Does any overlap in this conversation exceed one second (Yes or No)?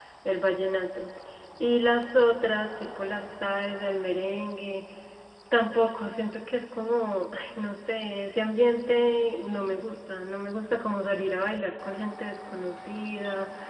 No